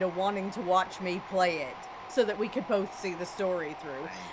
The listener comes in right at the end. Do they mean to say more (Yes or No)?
No